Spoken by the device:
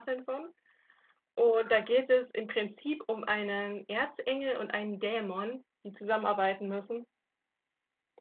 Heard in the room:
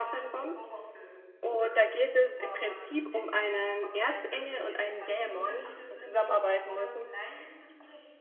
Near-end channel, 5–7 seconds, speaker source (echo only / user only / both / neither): both